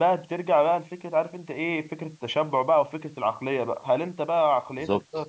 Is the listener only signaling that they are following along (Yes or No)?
Yes